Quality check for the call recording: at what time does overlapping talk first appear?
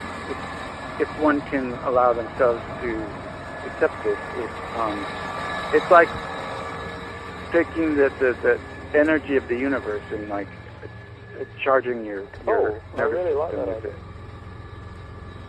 12 s

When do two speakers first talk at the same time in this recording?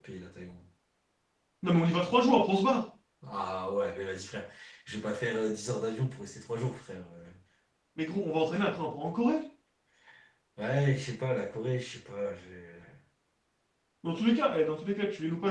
none

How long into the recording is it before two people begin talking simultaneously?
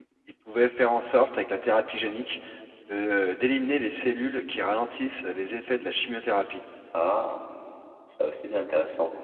none

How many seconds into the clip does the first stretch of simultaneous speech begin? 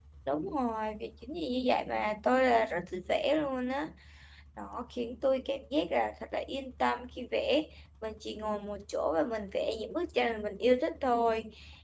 none

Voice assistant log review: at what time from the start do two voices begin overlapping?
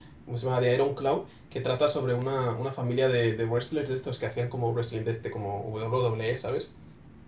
none

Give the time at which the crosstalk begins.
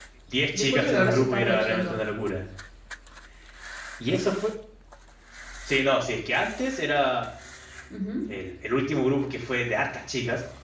1 s

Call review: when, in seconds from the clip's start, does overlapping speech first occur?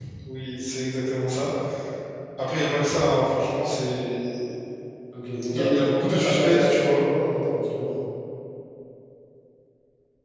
6 s

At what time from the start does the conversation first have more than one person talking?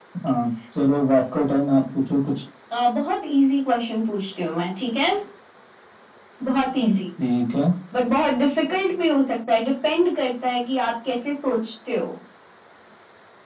none

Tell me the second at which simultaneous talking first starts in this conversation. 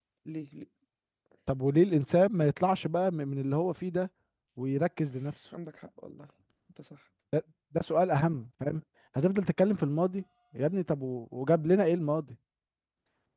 none

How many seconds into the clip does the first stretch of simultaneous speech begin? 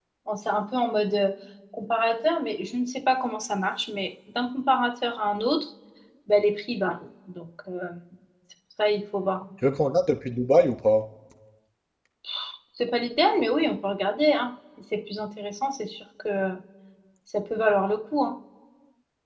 none

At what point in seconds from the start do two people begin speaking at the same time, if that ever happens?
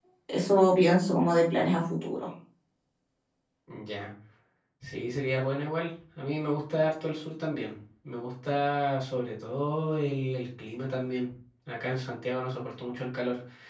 none

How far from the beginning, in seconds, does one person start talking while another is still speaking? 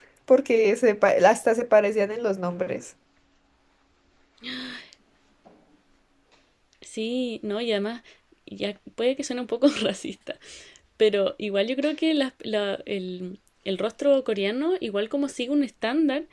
none

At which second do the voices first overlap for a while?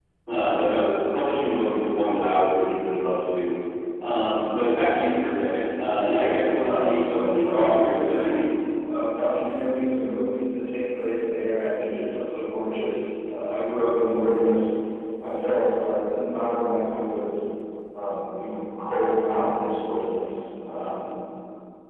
7 s

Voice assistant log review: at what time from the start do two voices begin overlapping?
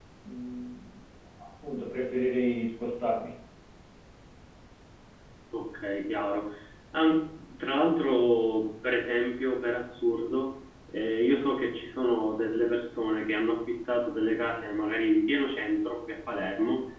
none

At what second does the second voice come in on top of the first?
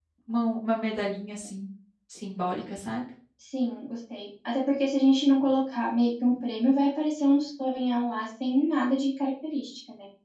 none

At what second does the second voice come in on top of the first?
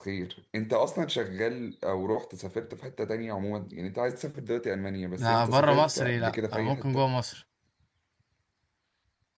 5 s

